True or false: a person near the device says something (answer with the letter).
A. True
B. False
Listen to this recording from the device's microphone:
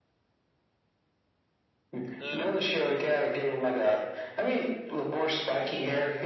A